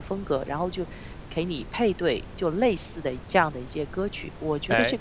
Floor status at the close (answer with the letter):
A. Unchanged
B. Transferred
B